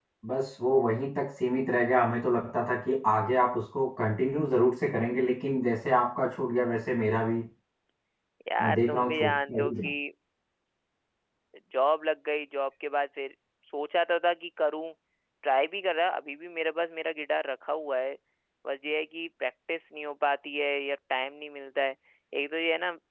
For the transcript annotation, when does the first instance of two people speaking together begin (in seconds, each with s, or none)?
8.6 s